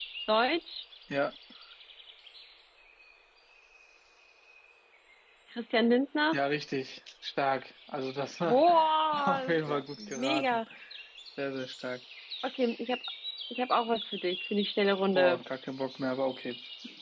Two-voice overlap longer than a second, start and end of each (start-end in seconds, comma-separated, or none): 9.3-10.6